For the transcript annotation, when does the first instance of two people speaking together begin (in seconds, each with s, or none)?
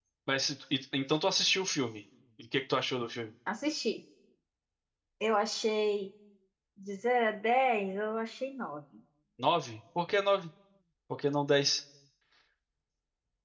none